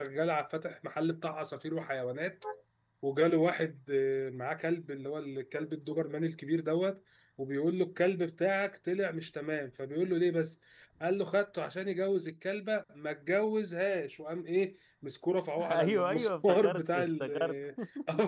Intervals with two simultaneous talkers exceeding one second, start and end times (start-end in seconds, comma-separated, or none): 15.7-17.3